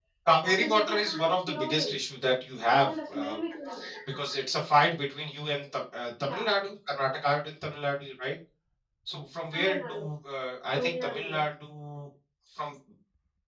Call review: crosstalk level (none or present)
present